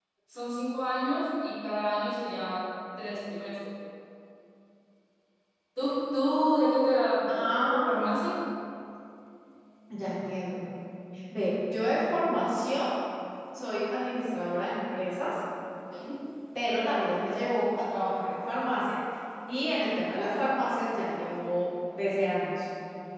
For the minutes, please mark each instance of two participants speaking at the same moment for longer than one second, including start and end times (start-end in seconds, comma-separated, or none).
none